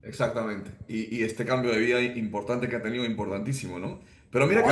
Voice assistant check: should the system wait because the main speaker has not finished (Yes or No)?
Yes